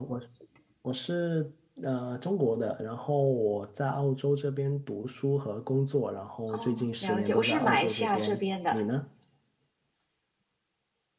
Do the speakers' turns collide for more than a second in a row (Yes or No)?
Yes